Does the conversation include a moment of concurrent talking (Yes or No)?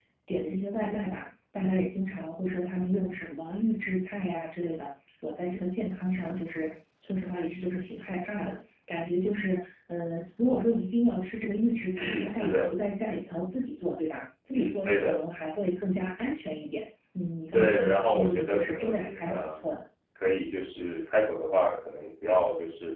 Yes